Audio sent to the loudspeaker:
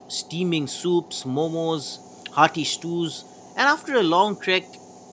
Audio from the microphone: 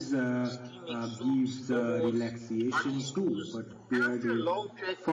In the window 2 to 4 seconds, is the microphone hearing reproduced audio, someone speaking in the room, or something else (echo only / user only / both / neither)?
both